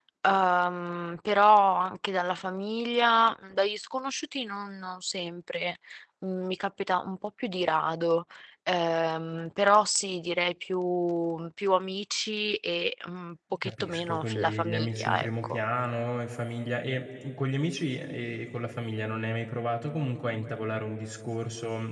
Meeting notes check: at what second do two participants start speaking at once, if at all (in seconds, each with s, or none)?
13.6 s